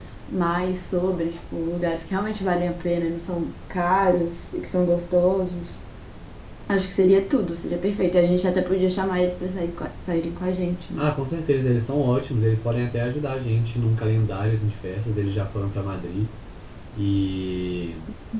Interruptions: none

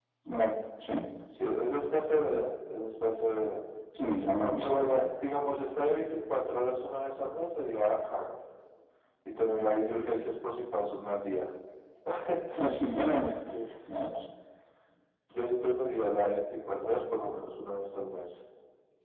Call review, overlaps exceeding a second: none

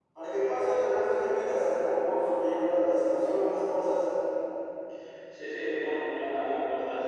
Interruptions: none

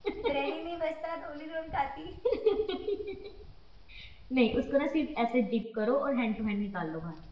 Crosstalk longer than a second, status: none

